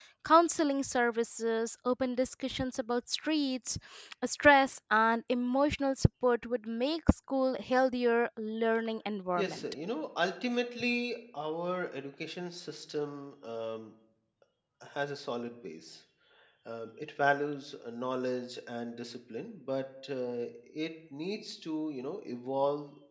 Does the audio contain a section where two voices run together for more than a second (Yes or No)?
No